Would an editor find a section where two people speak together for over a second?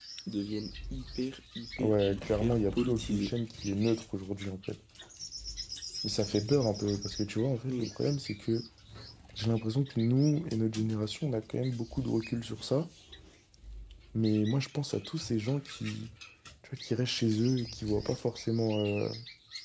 Yes, from 1.8 s

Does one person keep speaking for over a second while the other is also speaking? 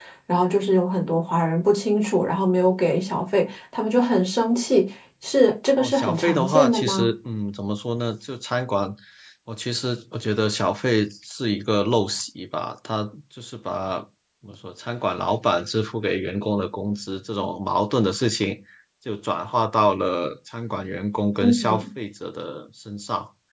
Yes, from 5.8 s

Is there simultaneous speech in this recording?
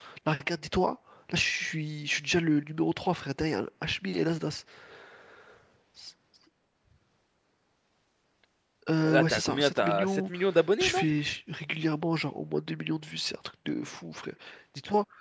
Yes, from 9.0 s

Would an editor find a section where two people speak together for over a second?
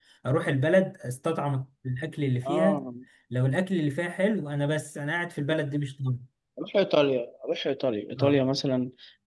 No

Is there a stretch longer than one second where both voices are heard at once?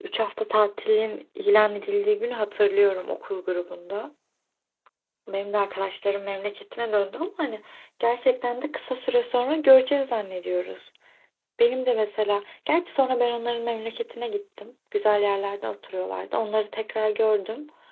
No

